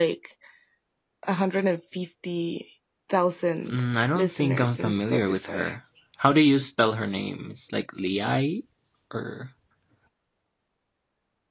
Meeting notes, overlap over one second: present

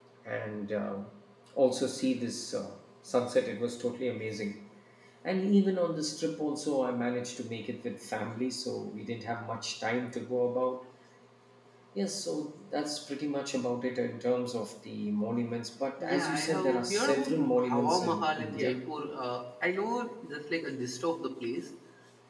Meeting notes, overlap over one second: present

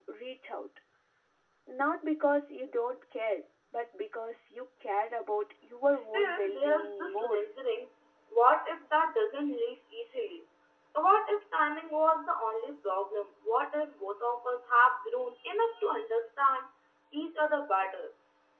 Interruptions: present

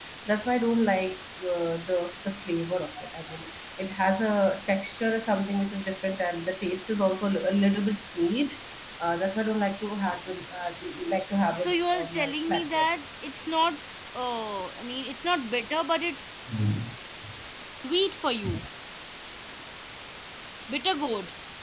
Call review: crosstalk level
present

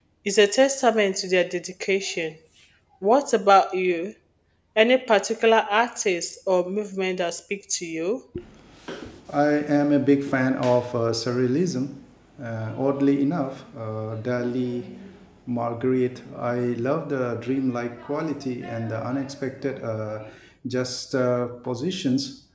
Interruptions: none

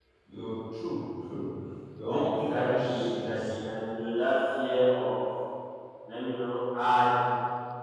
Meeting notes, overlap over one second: present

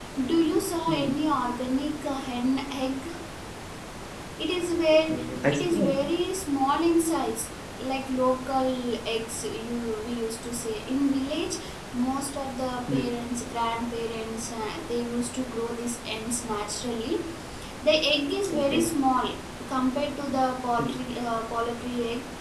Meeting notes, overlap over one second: none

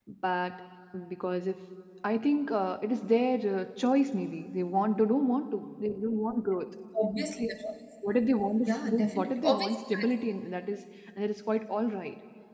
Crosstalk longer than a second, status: present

